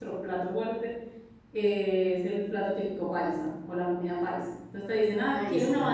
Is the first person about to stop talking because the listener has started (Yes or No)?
No